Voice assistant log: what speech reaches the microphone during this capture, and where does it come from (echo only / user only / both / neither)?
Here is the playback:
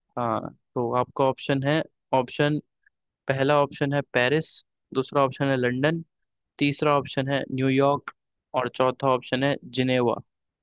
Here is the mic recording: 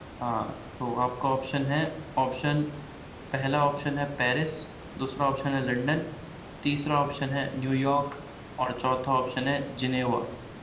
echo only